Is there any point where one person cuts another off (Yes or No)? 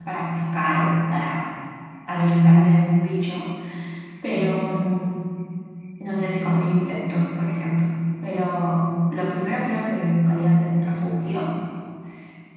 No